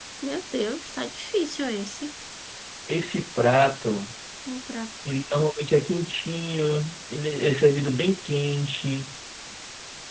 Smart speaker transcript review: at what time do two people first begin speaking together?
none

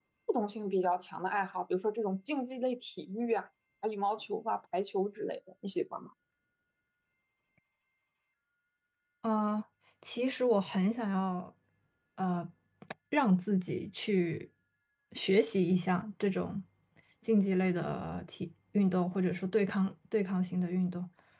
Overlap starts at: none

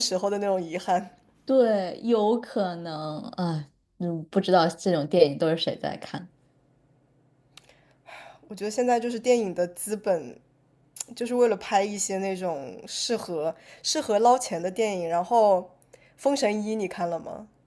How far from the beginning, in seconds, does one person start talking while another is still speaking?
none

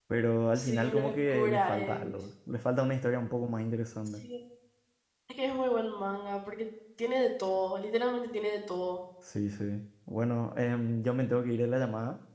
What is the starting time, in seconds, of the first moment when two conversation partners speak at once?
0.6 s

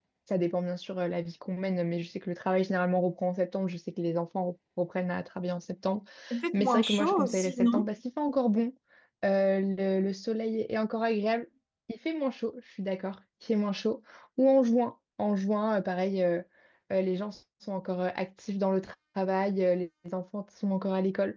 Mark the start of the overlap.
6.5 s

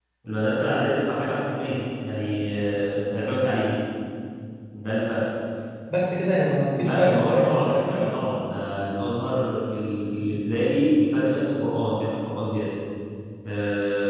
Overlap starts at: 6.8 s

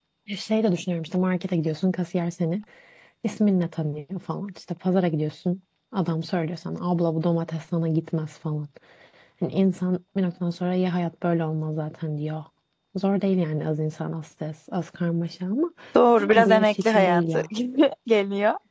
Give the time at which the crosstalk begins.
16.2 s

